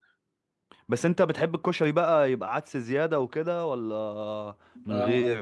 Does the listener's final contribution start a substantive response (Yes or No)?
Yes